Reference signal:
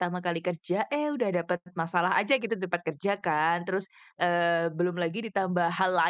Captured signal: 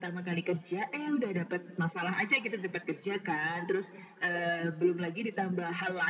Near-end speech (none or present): none